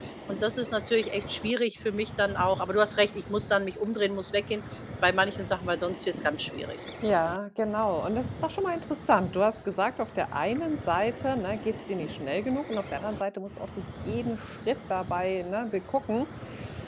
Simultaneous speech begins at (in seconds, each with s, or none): none